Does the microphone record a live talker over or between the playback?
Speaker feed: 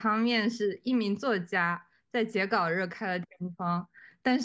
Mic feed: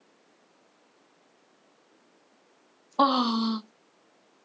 Yes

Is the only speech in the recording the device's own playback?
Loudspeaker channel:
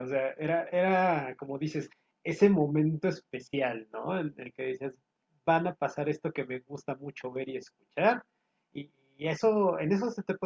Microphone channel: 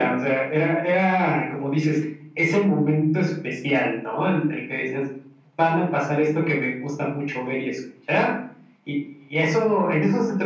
Yes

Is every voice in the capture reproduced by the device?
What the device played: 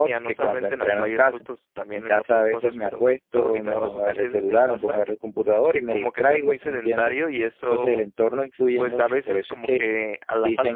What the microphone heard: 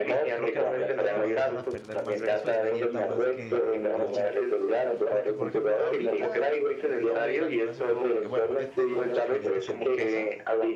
No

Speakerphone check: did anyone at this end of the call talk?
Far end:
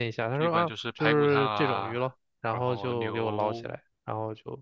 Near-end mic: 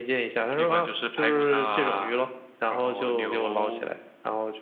No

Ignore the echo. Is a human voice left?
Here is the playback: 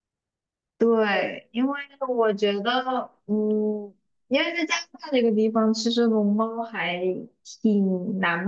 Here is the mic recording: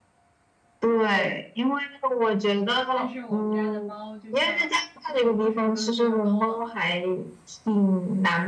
Yes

